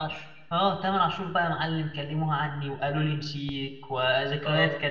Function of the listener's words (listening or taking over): listening